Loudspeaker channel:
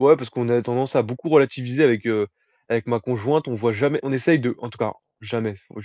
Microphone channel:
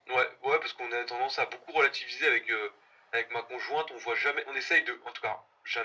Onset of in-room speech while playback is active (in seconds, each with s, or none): none